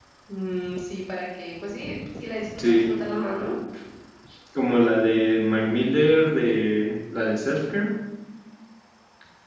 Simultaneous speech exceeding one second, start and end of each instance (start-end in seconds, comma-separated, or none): none